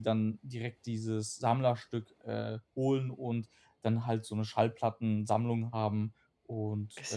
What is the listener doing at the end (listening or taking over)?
taking over